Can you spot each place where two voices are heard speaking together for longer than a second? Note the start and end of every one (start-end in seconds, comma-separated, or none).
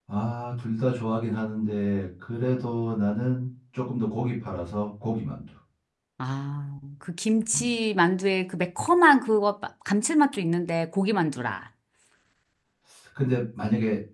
none